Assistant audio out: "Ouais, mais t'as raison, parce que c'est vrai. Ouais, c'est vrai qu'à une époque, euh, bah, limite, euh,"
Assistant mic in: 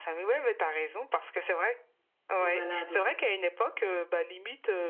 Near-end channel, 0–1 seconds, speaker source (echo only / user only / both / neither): echo only